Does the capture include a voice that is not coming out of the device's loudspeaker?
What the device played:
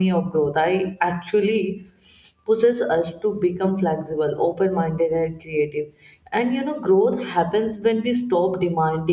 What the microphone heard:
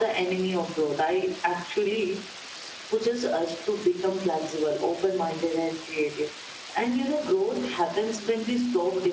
No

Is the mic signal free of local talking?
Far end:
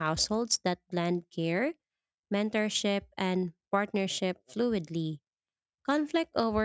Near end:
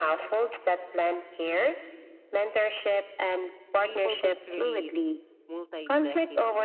No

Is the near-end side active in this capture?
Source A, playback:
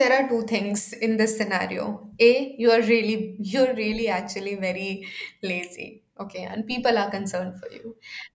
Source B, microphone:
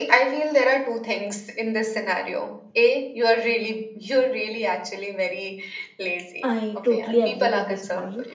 Yes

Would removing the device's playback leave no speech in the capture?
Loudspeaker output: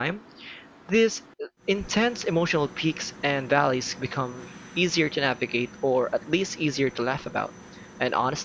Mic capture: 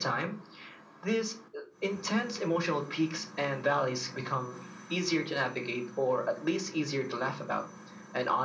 Yes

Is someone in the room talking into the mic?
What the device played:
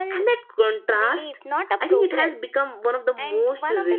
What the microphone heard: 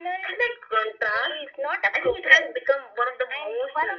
No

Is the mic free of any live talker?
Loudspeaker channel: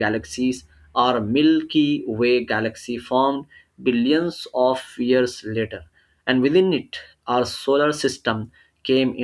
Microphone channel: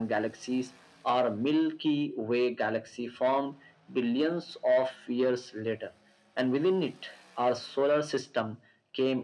Yes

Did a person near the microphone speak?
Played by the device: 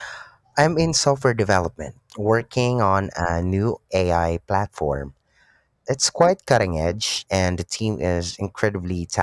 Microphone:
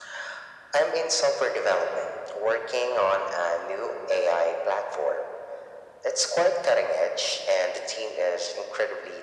No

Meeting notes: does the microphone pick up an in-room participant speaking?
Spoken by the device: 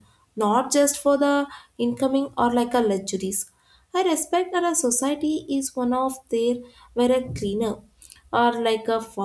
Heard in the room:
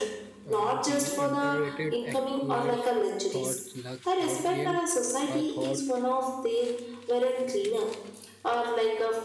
Yes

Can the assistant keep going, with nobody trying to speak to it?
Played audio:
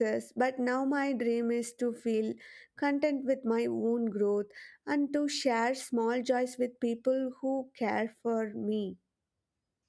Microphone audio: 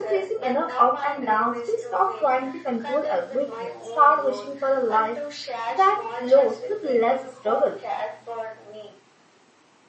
No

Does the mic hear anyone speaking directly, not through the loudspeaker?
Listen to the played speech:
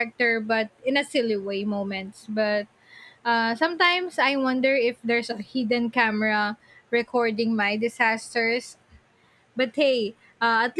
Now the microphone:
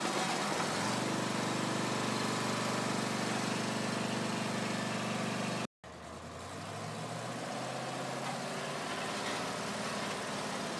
No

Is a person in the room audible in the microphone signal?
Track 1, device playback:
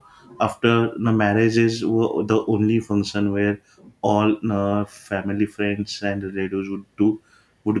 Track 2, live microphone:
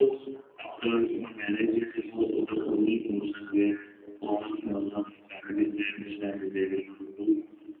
No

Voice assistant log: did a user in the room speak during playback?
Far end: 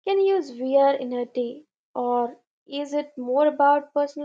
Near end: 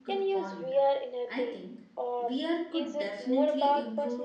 Yes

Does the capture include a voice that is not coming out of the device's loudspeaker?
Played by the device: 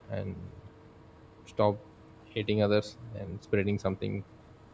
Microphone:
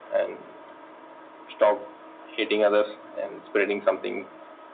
No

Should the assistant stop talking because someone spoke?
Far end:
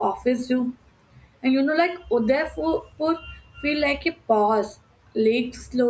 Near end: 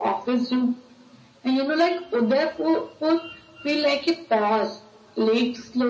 No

